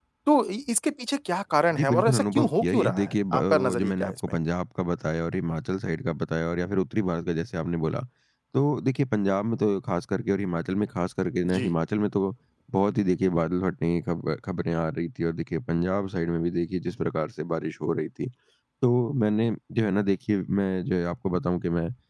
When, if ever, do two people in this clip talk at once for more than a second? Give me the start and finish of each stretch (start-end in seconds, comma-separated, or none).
1.8-4.2